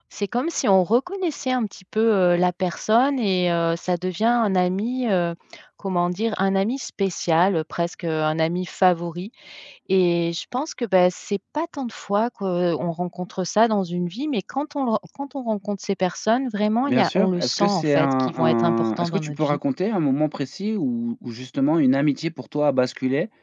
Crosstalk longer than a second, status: present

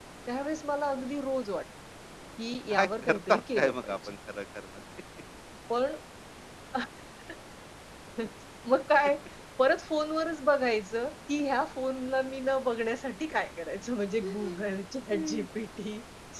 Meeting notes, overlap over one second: present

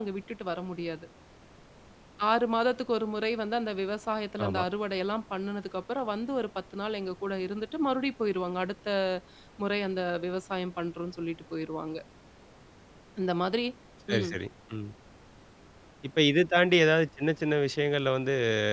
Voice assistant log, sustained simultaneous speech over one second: none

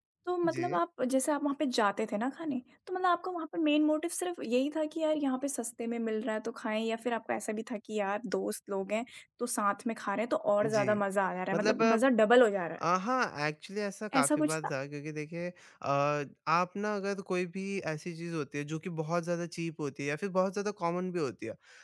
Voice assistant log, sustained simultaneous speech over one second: none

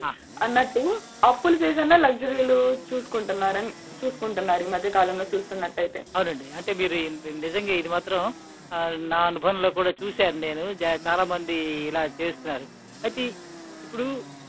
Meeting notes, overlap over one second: none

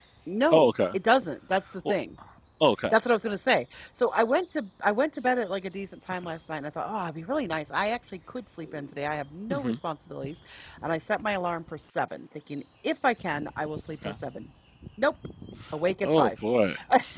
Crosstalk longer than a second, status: none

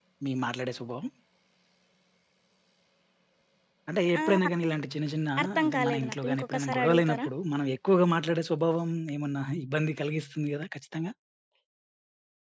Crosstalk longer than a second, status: present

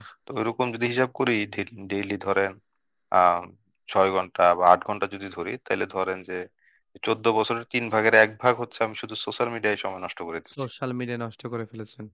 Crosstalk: none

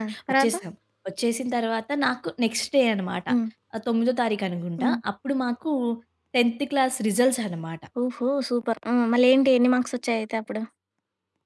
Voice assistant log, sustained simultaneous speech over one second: none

